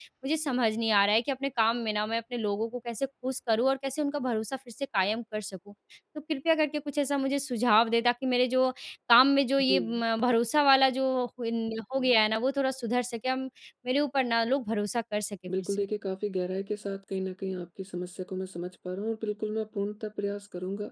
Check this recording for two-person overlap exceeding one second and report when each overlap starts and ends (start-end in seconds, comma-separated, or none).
none